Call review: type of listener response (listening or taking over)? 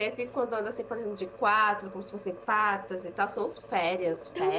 taking over